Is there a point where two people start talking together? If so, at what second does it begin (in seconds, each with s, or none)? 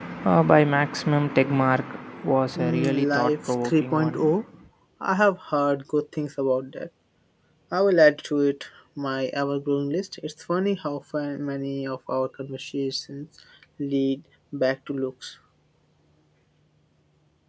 2.5 s